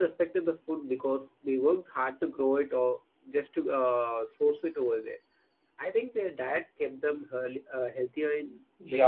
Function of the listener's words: taking over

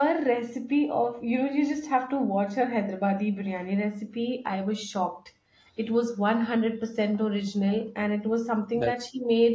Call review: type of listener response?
listening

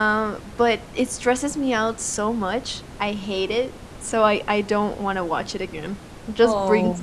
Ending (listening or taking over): listening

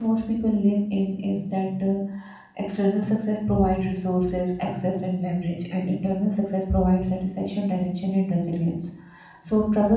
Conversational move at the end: listening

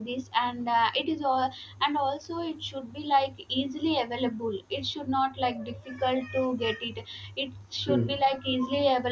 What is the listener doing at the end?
listening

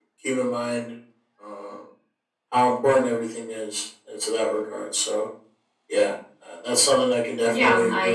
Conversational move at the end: taking over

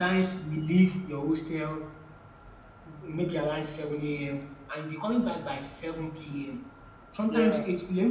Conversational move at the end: listening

